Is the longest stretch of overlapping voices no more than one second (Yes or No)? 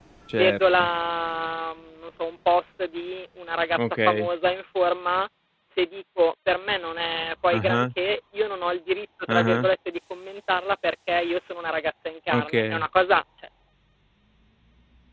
Yes